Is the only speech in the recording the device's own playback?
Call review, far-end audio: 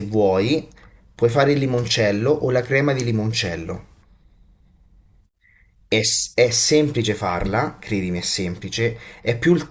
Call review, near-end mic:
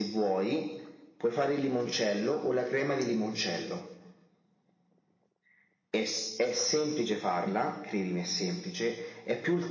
Yes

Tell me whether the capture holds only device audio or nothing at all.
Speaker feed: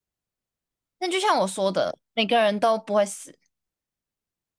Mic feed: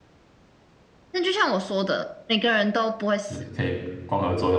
No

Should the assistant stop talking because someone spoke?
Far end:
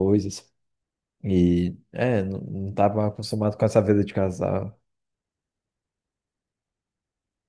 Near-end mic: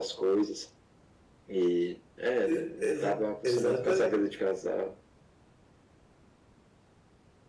Yes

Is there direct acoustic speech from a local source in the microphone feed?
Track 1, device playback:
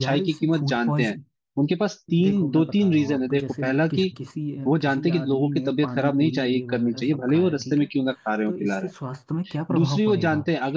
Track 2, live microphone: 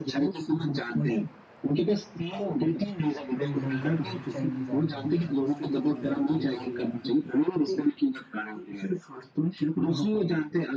Yes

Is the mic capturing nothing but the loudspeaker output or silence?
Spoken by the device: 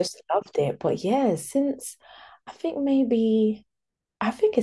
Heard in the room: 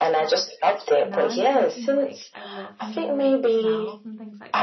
No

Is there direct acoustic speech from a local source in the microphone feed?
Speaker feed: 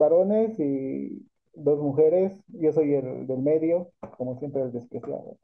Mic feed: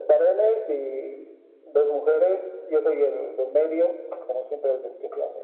No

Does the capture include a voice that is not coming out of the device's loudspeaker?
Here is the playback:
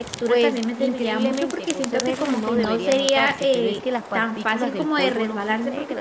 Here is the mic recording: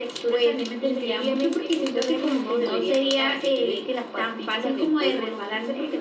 No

